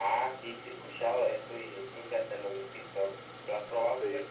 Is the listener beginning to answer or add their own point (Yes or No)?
Yes